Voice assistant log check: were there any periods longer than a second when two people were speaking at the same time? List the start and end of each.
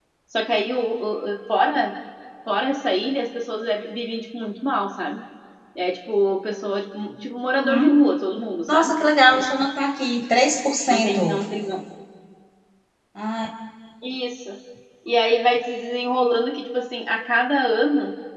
none

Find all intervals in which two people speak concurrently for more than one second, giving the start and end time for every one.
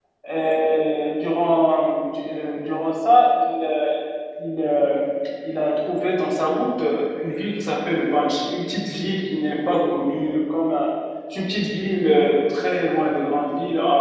none

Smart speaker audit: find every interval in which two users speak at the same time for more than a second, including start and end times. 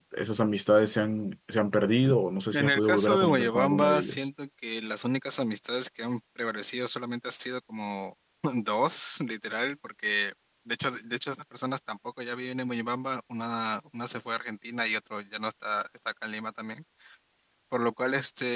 2.5-4.3

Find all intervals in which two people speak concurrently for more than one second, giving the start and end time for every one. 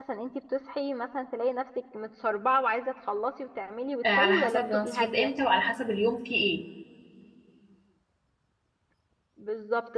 4.0-5.3

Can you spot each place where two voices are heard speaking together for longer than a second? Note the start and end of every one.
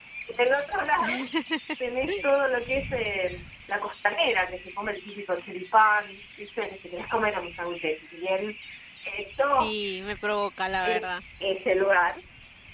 none

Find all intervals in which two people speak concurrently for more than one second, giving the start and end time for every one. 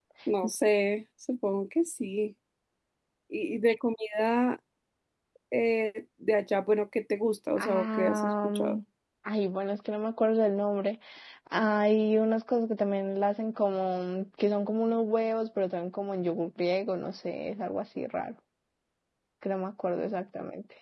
7.6-8.8

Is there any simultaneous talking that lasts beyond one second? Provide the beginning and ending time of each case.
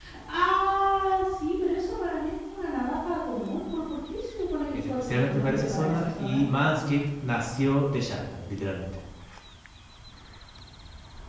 4.7-6.4

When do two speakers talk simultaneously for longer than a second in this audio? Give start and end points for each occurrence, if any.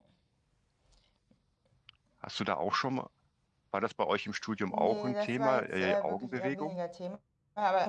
4.7-6.8

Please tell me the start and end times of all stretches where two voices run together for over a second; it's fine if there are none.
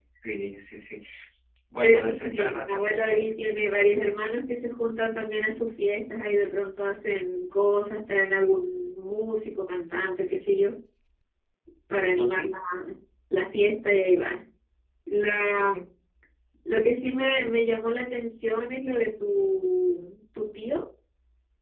1.8-3.3

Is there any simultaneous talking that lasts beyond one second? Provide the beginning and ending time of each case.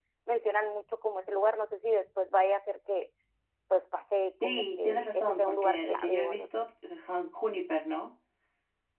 4.4-6.5

